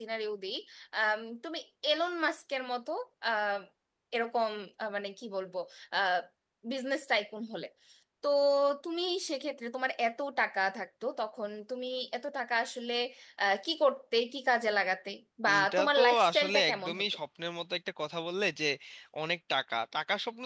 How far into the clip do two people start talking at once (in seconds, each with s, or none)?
15.5 s